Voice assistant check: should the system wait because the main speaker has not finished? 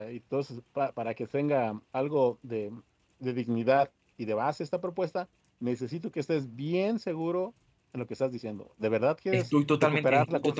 No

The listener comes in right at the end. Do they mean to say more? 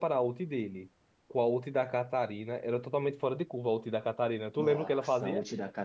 Yes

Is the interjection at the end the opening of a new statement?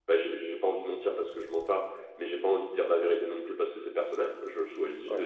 No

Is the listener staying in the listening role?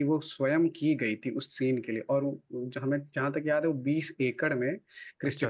Yes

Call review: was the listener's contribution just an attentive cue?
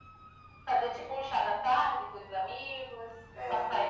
Yes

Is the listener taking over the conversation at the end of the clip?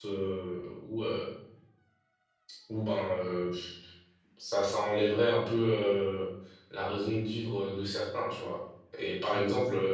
No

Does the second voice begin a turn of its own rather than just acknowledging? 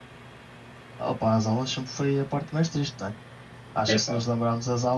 No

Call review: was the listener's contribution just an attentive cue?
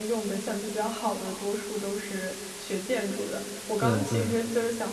Yes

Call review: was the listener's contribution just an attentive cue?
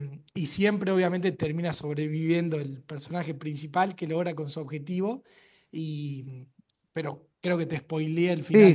No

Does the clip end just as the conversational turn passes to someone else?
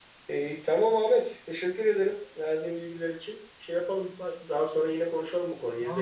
Yes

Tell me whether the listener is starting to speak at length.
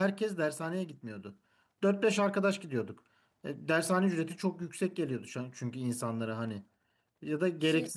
No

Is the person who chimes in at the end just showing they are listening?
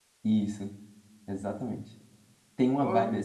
Yes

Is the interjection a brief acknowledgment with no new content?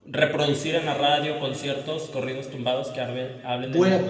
No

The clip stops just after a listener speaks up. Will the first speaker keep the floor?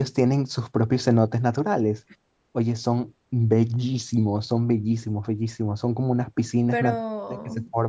Yes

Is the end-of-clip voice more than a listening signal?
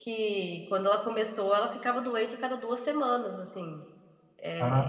No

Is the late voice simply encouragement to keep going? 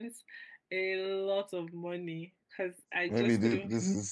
No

